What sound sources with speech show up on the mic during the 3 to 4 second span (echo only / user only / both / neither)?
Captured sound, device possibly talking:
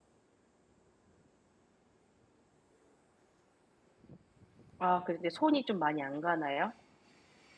neither